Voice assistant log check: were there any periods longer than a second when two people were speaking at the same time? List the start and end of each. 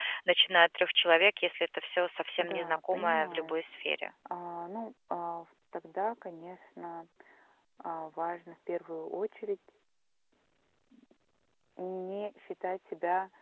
2.4-3.6

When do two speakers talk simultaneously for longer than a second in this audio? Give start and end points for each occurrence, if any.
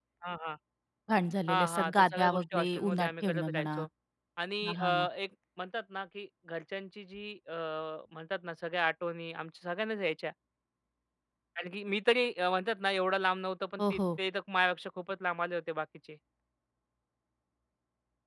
1.5-3.8

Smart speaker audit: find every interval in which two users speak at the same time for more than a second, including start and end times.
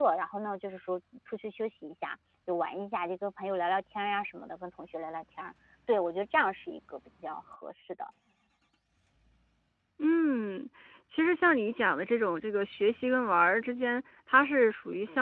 none

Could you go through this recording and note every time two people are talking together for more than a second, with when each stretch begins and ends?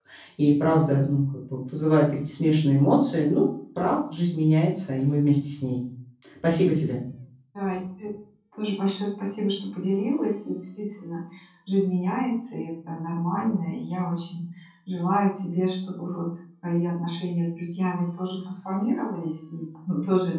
none

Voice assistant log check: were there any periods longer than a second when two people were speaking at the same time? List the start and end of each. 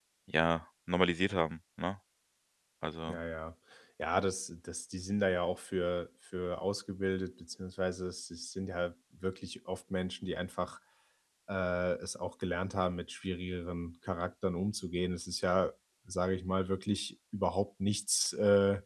none

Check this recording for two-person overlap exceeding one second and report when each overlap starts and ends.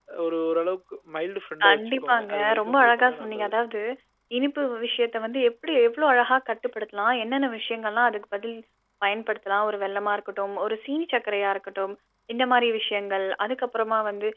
1.7-3.5

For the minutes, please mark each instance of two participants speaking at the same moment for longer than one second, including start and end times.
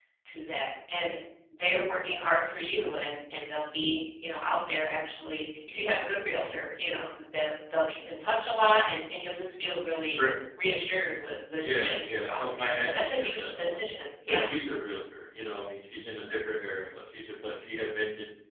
11.6-13.8

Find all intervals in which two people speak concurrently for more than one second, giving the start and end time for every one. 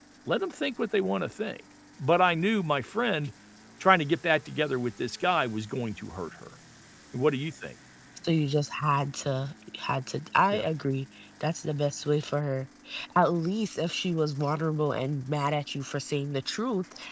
none

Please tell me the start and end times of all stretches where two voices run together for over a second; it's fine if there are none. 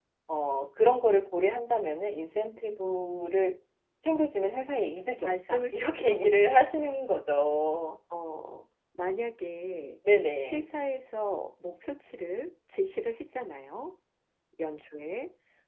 5.2-7.1

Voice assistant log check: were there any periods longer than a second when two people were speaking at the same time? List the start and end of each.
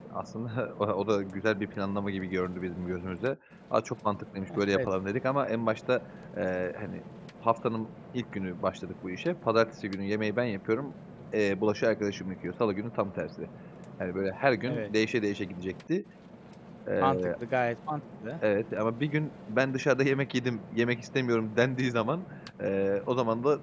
none

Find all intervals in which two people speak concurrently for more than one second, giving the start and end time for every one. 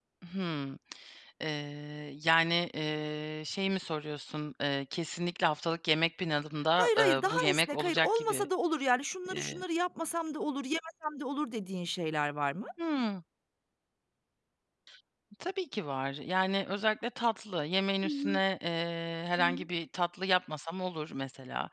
6.8-8.5

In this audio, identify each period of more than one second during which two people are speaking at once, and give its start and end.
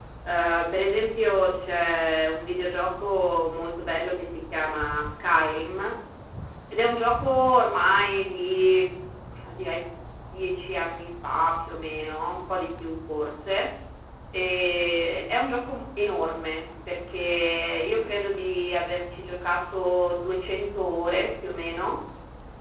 none

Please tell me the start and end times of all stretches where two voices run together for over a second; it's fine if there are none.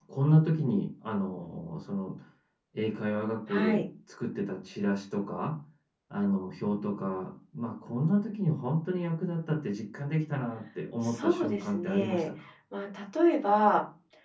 11.0-12.3

